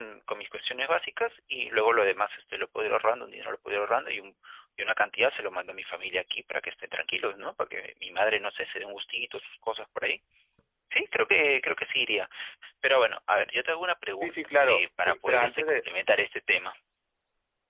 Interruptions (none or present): present